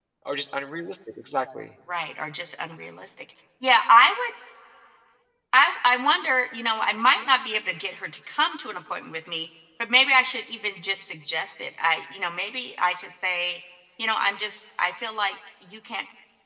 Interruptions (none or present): none